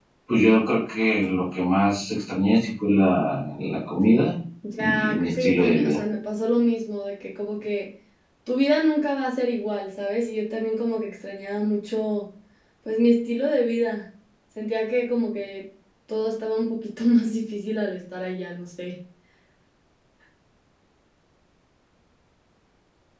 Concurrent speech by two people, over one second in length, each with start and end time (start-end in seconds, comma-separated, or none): 4.8-6.0